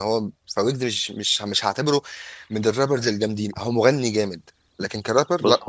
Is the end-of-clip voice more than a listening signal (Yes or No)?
Yes